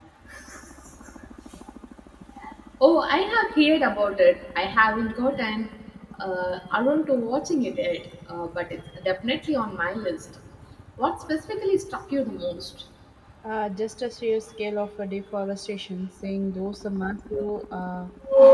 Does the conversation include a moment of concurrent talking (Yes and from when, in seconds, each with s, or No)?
No